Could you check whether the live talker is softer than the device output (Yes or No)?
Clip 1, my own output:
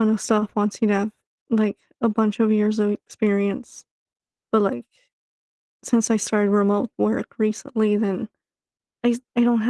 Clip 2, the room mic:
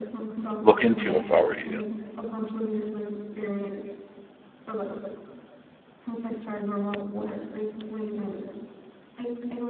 No